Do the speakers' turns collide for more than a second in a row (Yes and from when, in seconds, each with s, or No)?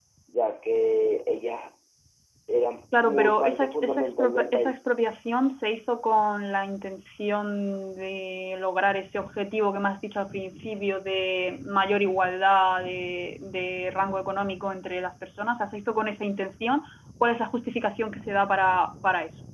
Yes, from 3.0 s